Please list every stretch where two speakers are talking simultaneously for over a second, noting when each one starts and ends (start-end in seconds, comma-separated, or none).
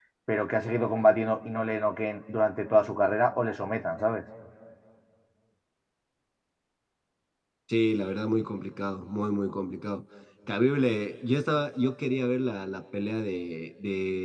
none